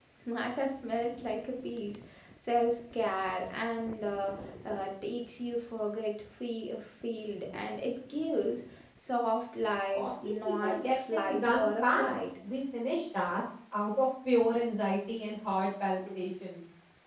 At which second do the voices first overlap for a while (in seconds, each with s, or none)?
9.9 s